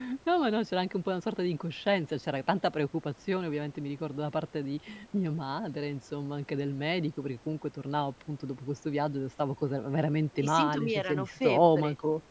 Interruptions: present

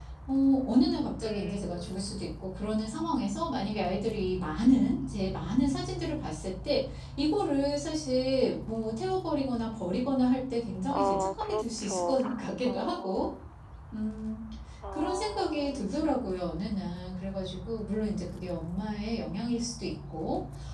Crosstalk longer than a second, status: present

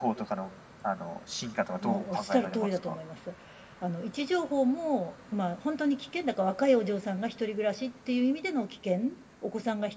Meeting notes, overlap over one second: present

